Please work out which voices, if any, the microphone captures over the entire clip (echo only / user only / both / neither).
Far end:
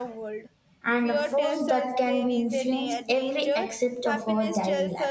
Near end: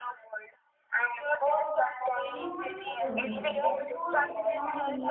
both